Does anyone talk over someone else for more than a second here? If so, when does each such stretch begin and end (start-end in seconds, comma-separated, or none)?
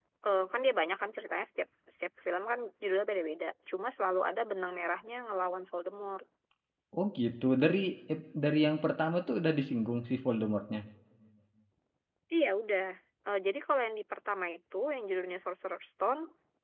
none